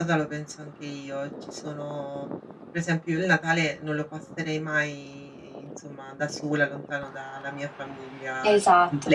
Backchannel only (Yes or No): No